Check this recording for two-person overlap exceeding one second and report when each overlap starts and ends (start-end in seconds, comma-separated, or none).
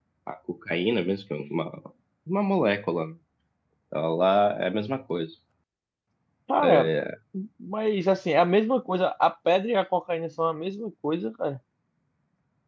none